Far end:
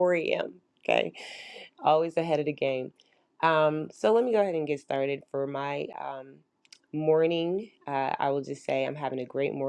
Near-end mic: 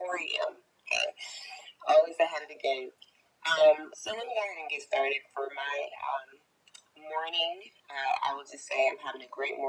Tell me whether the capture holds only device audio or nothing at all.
Yes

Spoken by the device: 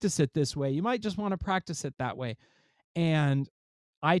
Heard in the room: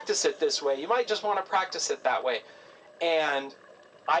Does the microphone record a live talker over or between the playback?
No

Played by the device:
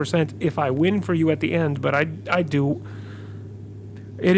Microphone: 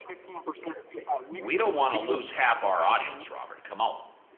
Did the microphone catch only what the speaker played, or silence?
No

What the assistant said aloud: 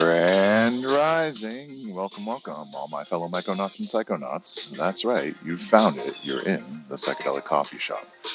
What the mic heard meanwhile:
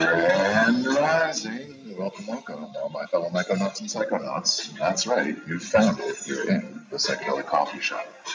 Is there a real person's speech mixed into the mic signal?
No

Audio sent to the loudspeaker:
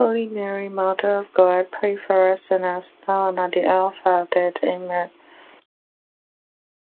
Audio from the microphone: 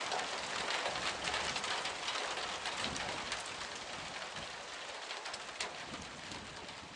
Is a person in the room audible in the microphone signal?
No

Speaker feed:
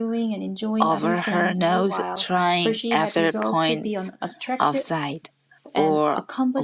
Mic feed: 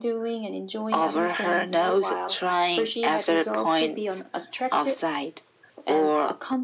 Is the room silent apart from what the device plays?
Yes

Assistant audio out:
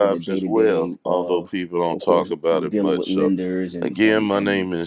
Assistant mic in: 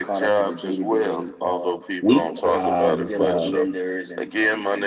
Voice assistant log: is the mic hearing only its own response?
No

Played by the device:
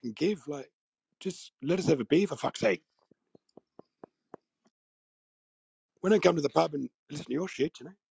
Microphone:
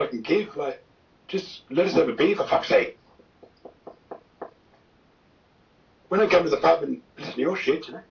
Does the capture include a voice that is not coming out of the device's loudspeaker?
No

